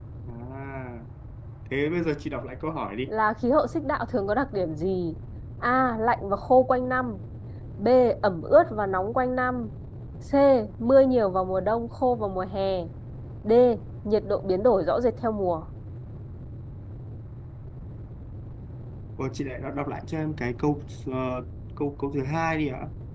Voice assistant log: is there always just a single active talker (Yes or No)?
Yes